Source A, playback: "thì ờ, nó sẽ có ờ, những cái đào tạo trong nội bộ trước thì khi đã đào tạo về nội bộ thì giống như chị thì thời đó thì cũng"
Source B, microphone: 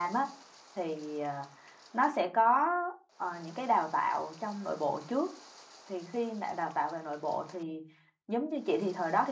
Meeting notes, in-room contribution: none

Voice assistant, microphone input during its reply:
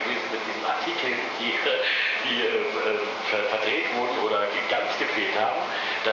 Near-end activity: none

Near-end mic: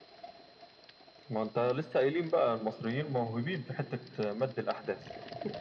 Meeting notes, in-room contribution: none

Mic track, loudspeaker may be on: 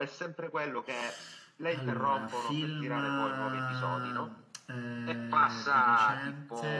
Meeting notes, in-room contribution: none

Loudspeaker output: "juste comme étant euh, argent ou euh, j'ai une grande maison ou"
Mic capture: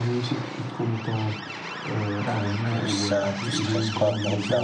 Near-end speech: present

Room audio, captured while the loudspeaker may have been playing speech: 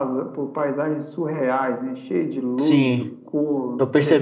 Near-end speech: present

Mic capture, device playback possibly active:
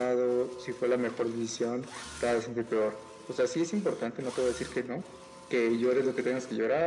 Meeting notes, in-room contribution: none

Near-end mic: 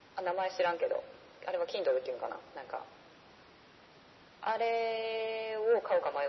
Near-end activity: none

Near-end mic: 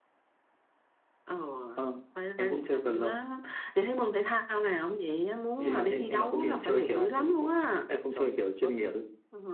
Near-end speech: present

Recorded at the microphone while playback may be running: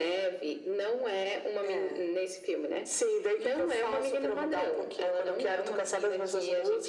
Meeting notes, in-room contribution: none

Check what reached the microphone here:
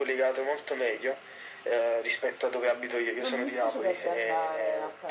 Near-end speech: present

